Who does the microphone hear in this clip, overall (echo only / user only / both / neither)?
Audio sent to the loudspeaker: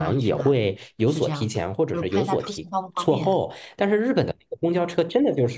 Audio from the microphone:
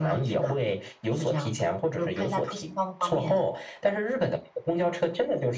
echo only